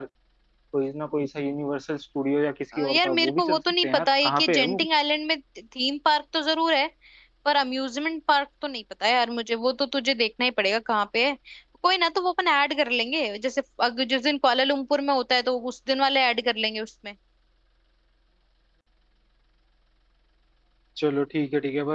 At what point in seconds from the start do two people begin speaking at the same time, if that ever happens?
2.7 s

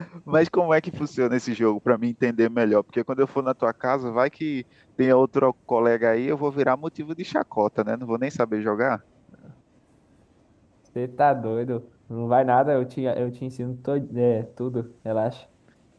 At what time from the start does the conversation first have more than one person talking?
none

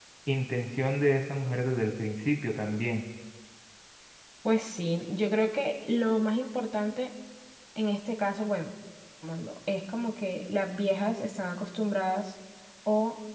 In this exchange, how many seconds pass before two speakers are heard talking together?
none

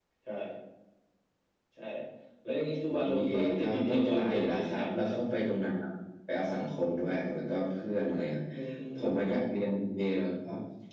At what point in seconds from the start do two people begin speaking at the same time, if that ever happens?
2.9 s

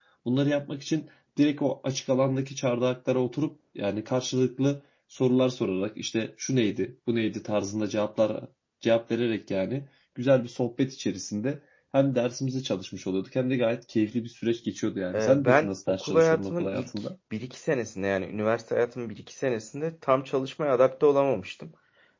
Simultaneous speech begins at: 15.1 s

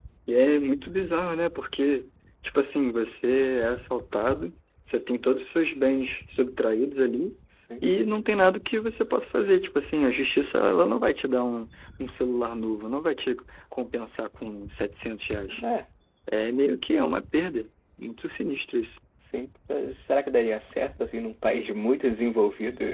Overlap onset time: none

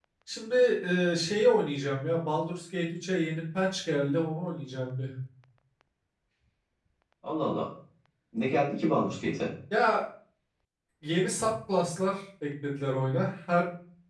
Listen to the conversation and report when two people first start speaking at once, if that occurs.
none

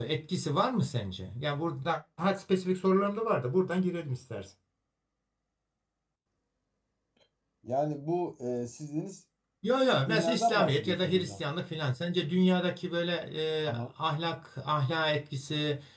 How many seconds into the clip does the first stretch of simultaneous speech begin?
9.9 s

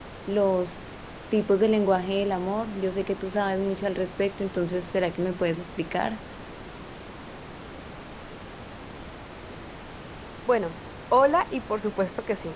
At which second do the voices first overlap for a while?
none

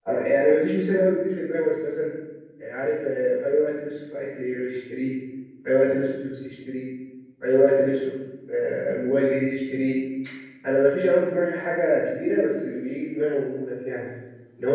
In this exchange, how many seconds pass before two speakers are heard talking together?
none

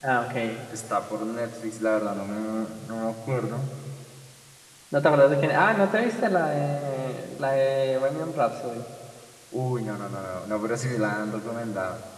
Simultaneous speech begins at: none

